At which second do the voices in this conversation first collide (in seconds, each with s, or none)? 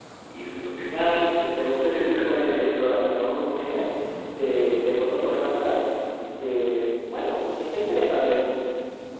0.9 s